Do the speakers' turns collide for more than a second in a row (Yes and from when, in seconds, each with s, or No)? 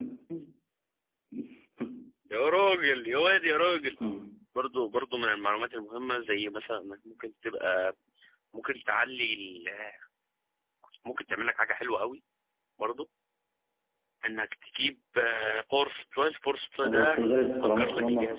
Yes, from 16.8 s